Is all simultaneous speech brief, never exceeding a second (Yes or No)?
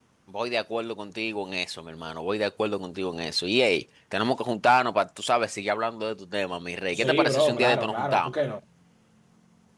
No